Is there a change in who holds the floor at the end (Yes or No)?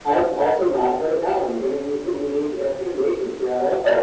Yes